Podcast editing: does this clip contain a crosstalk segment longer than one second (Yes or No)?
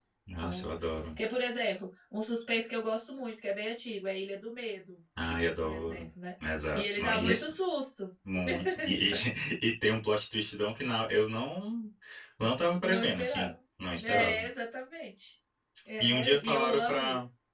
Yes